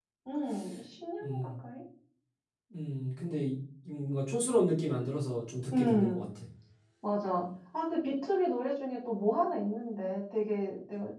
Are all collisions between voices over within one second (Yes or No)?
Yes